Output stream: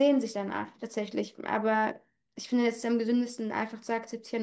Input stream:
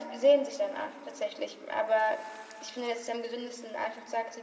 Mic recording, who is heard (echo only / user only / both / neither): echo only